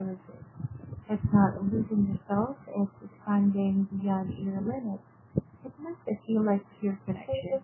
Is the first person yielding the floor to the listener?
No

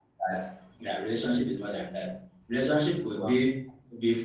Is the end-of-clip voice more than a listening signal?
No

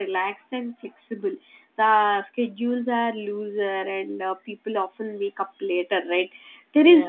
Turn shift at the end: No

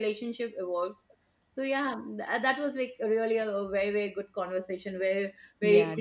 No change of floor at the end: No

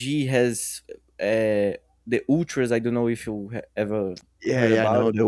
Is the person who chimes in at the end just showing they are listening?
No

